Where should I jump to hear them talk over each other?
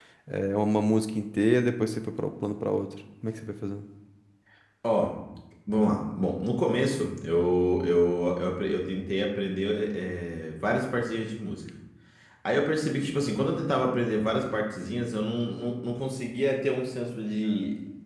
none

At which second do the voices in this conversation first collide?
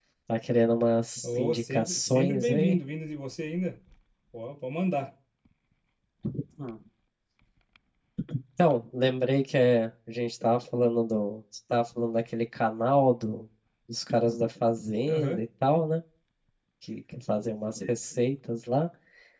1.2 s

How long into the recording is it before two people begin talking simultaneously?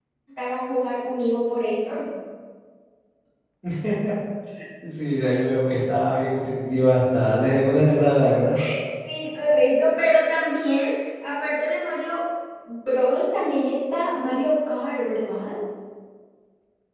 none

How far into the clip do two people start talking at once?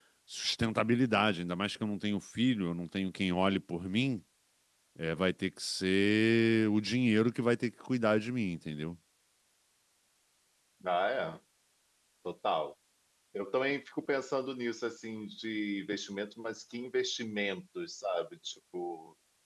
none

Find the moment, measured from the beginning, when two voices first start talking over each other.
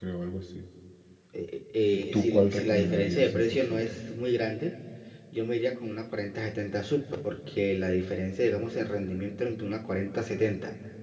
2.1 s

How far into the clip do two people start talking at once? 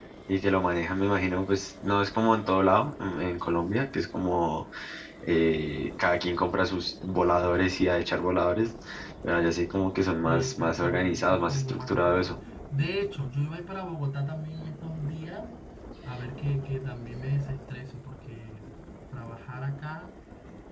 10.2 s

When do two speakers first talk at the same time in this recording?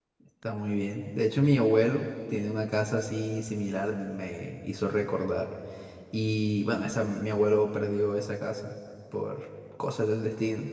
none

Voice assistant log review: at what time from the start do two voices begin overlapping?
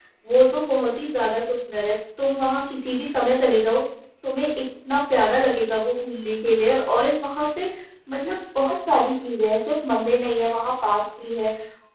none

